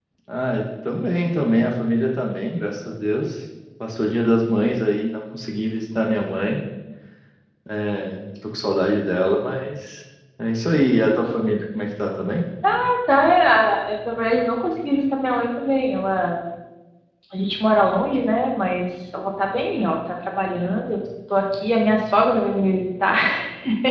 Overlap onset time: none

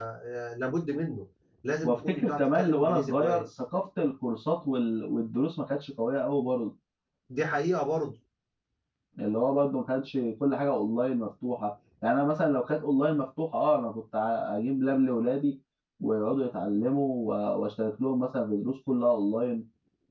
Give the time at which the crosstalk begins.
2 s

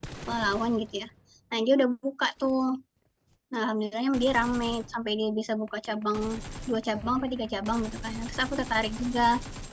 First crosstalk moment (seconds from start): none

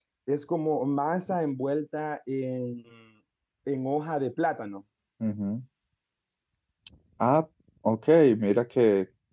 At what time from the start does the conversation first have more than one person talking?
none

